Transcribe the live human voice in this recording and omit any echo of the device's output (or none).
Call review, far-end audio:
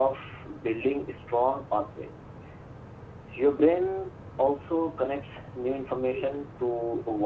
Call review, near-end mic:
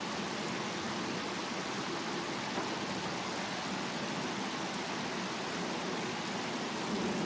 none